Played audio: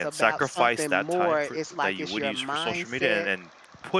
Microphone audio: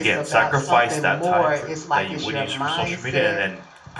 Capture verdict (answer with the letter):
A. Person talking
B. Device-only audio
B